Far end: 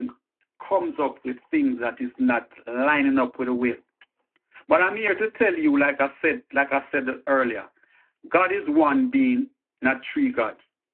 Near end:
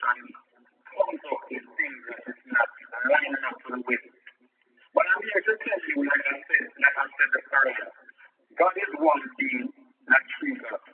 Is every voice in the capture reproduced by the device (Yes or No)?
Yes